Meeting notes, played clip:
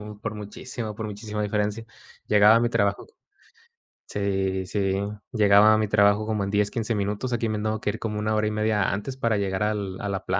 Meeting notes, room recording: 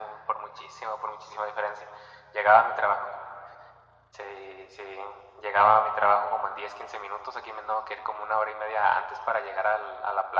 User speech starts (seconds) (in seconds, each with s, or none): none